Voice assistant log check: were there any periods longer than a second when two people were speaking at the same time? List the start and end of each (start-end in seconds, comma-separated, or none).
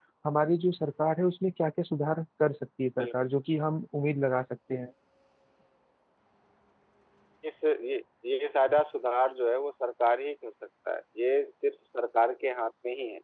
none